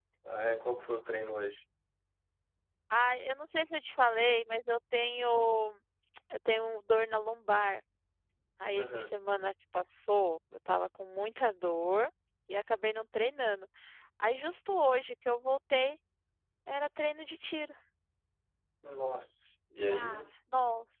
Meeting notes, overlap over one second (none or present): none